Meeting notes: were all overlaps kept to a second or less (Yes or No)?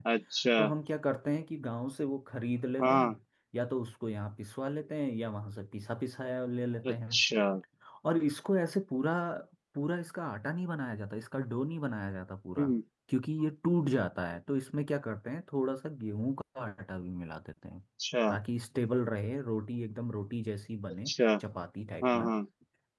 Yes